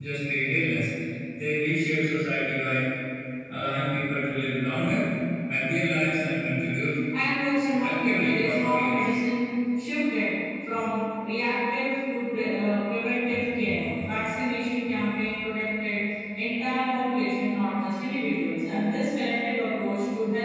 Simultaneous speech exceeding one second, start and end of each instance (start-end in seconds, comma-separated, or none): 7.7-9.1